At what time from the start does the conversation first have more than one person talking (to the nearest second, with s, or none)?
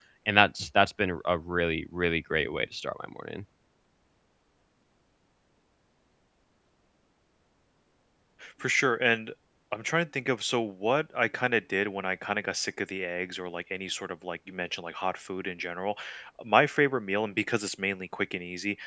none